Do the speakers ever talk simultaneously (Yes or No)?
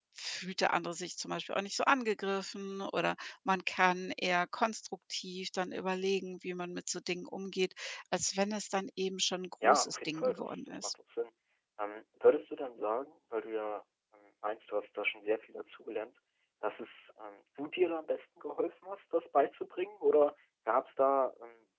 Yes